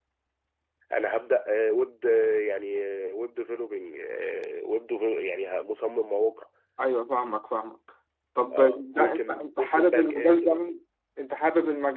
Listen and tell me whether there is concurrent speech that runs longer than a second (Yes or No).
Yes